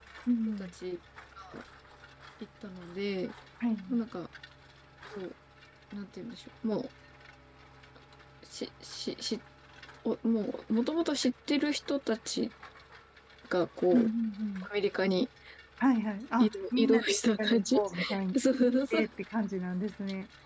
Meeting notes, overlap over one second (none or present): present